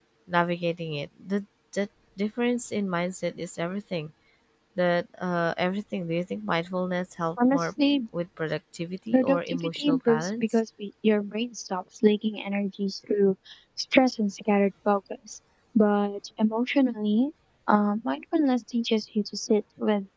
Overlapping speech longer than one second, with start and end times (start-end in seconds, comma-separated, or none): 9.1-10.6